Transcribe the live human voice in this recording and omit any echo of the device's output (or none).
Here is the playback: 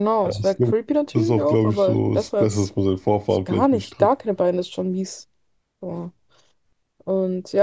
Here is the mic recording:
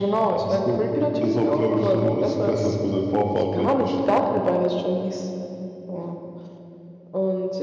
none